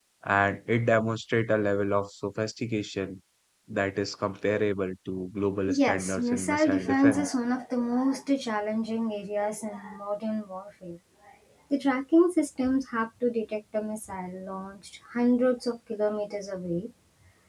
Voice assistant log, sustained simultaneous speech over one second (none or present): present